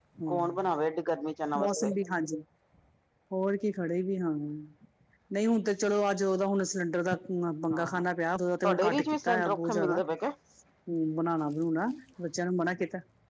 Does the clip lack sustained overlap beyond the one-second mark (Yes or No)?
No